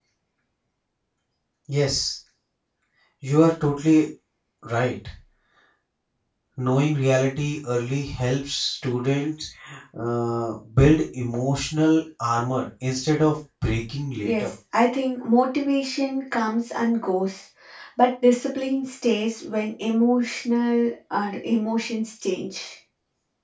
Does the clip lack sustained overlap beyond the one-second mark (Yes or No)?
Yes